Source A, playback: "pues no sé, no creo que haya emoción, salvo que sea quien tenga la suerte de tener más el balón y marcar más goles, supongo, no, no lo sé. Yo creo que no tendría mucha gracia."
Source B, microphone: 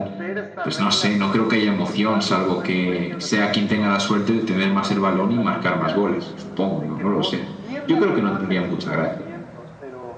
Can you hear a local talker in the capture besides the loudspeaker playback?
Yes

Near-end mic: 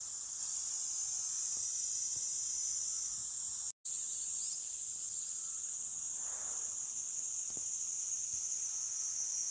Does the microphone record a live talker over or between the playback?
No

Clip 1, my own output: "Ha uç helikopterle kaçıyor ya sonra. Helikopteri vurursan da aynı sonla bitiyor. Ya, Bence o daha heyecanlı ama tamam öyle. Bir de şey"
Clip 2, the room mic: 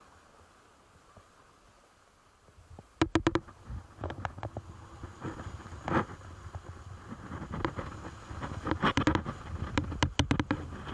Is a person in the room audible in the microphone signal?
No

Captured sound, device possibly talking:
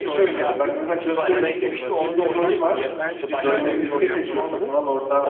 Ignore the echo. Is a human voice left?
Yes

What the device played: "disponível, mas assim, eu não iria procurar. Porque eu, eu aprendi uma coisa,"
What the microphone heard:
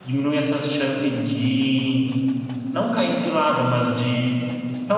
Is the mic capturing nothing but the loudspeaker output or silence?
No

